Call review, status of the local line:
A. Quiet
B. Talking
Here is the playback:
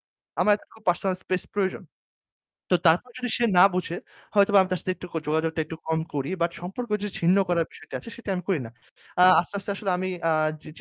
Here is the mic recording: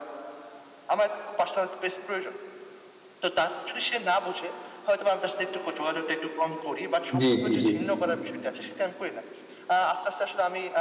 B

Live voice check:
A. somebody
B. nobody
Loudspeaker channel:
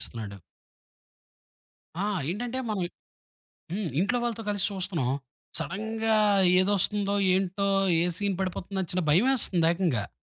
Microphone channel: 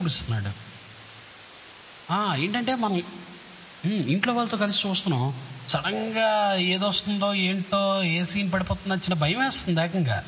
B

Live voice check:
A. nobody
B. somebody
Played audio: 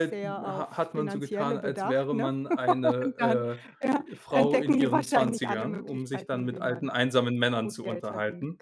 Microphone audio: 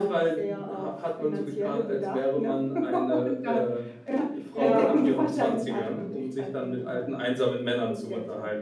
B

